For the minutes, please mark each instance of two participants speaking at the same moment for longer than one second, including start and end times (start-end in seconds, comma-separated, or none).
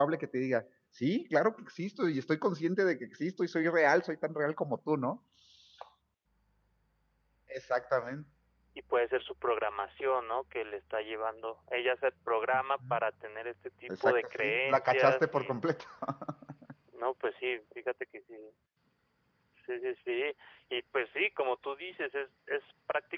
14.0-15.6